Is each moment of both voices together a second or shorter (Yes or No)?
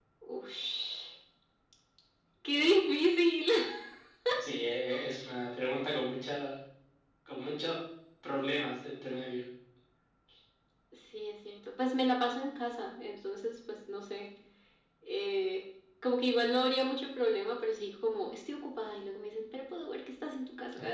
Yes